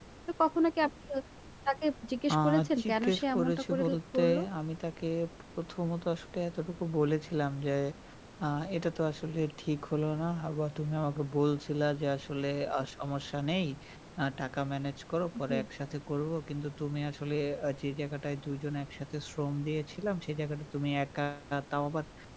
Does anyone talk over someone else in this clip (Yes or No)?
Yes